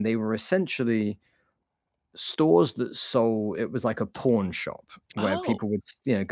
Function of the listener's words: listening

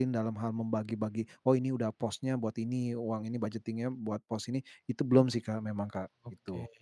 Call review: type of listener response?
taking over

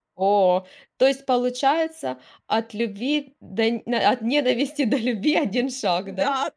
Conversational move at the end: taking over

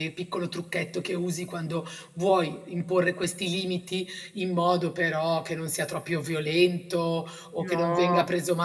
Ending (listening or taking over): listening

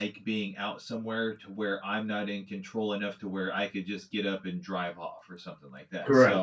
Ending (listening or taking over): taking over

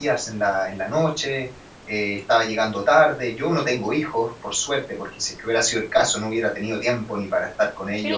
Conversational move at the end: taking over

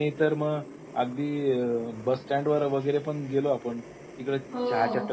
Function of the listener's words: listening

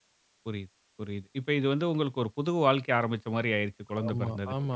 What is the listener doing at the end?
taking over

